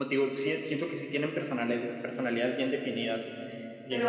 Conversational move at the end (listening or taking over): taking over